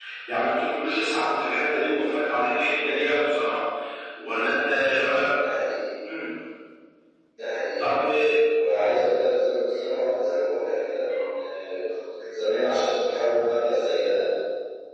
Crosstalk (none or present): none